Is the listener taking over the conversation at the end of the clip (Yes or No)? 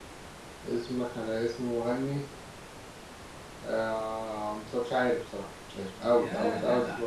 Yes